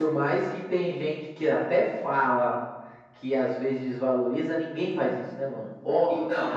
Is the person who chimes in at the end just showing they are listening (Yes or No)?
Yes